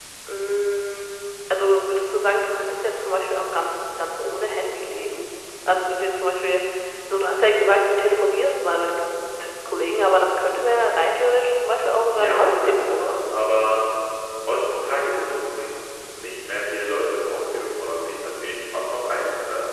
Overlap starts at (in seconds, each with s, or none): 12.1 s